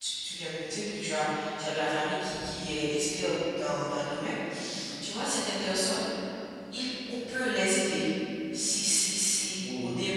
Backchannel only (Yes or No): Yes